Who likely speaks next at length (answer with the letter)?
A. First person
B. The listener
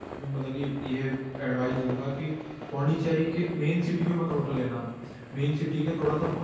A